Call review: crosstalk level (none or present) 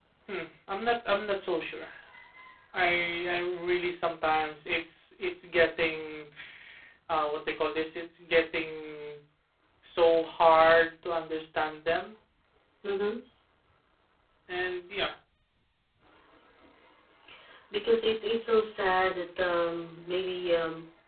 none